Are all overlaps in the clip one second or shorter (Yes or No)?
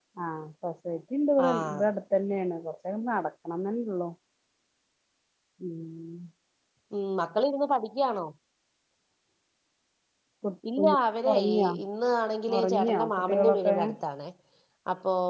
No